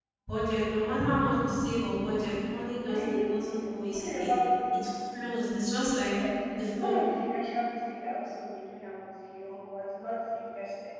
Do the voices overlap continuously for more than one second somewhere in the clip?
No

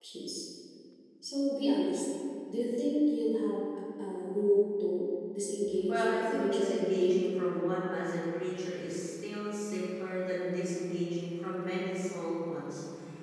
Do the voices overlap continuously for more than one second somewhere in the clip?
Yes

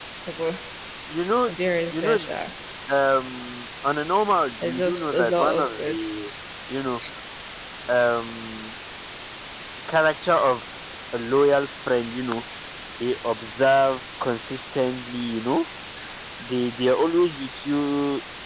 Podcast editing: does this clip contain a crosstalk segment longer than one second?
Yes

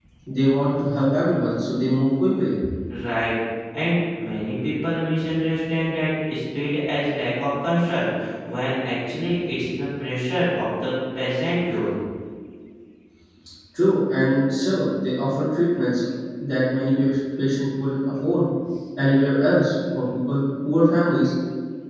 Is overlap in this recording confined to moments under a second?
Yes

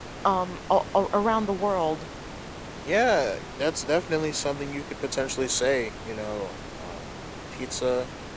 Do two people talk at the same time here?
No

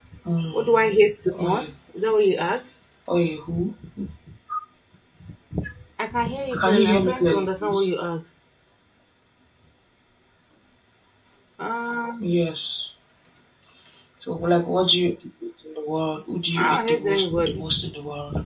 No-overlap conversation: No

